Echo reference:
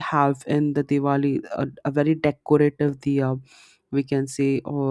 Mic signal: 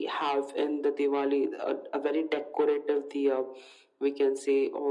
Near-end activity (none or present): none